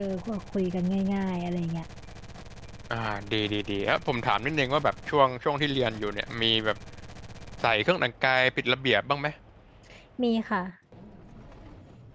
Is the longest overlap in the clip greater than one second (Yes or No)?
No